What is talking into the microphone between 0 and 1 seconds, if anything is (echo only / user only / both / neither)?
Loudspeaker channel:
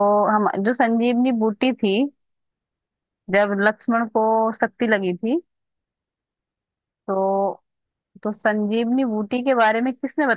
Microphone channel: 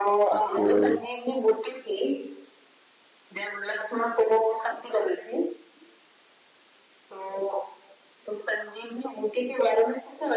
both